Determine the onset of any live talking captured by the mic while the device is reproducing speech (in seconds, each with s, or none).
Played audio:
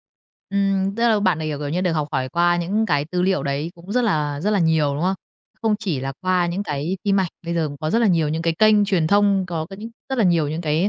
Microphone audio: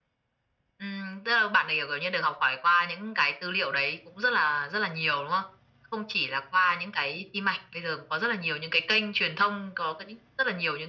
none